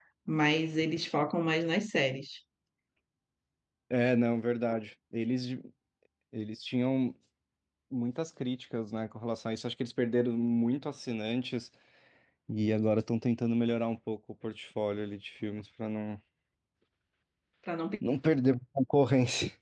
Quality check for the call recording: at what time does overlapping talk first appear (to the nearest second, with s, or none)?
none